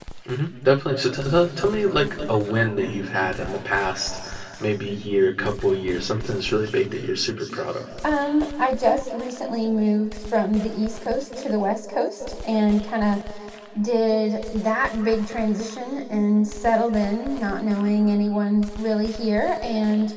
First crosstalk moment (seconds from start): none

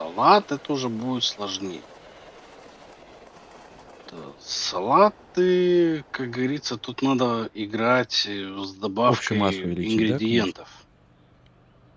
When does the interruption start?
9.1 s

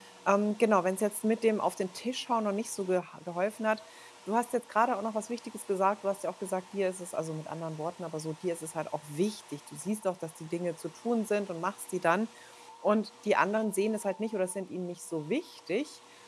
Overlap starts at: none

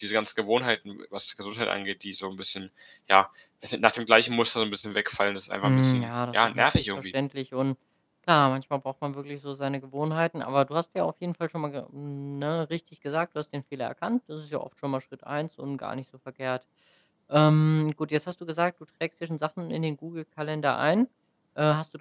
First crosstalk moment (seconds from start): 5.6 s

